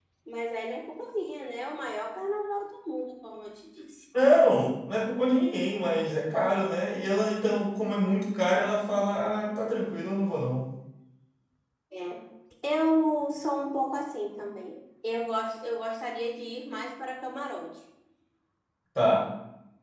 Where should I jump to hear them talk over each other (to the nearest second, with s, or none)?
none